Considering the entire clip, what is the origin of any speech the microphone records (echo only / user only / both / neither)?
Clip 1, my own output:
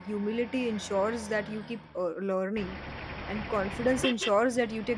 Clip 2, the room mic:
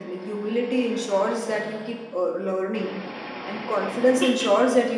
echo only